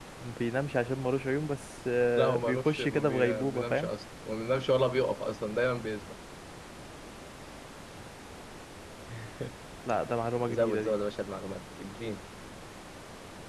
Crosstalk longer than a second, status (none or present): present